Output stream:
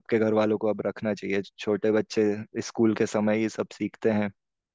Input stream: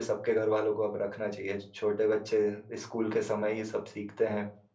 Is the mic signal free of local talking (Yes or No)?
Yes